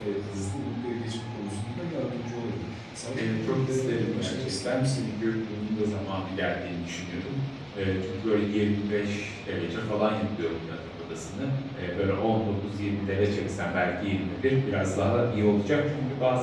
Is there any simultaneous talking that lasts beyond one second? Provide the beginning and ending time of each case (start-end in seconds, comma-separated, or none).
3.1-5.0